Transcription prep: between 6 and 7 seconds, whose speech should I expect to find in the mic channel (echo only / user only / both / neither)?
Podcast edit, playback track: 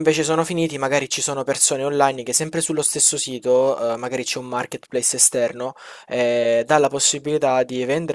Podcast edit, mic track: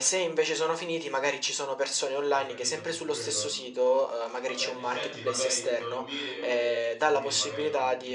both